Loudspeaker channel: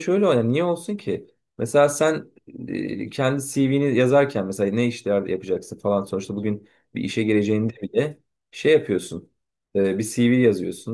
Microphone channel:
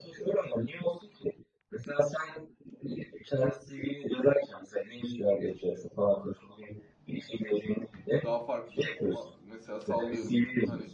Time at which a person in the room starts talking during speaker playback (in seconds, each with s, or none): 8.2 s